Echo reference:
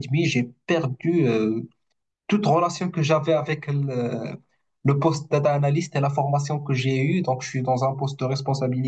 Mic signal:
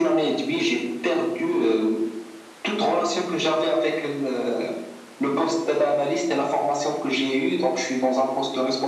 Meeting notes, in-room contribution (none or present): none